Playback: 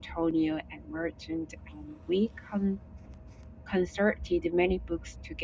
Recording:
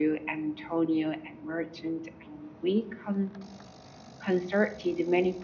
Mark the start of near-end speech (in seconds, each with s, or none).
none